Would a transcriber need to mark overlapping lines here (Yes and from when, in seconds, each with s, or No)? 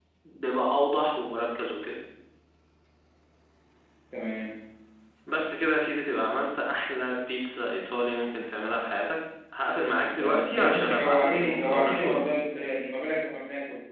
Yes, from 10.1 s